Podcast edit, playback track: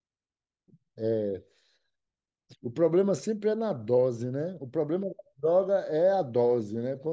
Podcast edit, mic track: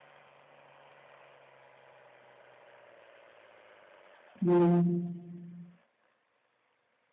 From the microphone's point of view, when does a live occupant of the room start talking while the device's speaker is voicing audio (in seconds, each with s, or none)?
4.4 s